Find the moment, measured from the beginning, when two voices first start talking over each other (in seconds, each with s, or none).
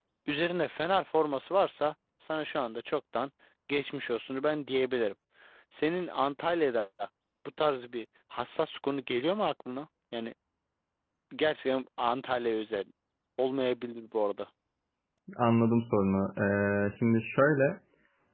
none